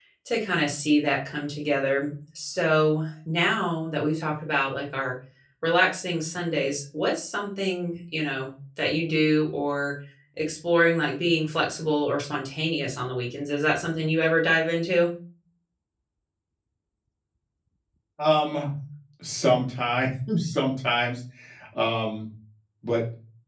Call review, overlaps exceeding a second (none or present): none